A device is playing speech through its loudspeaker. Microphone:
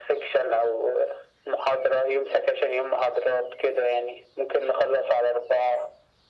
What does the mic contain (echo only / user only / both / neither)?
echo only